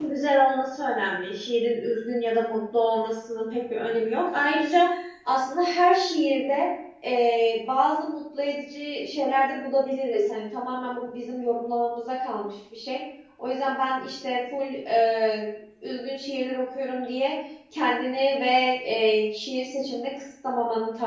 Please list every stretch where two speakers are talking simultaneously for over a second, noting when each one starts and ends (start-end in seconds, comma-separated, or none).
none